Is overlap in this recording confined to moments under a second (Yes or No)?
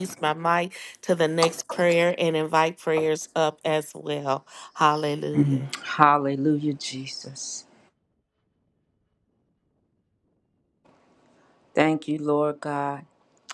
Yes